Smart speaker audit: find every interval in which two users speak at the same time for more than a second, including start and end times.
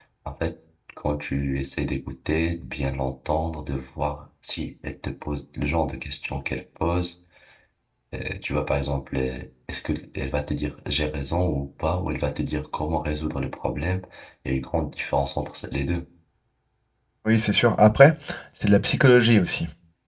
none

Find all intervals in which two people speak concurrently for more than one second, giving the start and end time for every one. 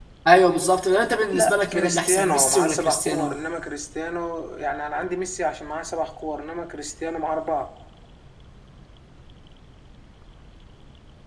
1.3-3.3

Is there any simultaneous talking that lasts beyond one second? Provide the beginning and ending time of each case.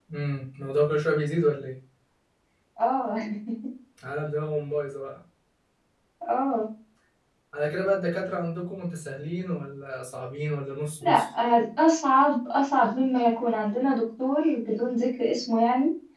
none

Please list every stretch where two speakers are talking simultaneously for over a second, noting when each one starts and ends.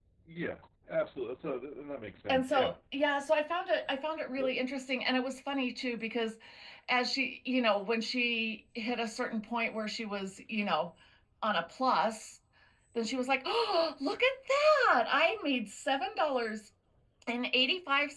none

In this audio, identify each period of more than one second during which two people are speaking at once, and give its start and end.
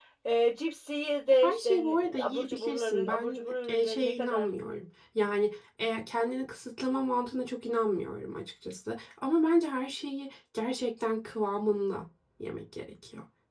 1.4-4.5

